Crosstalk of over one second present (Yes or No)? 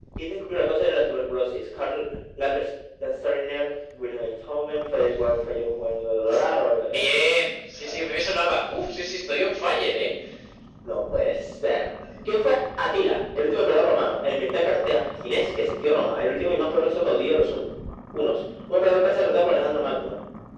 No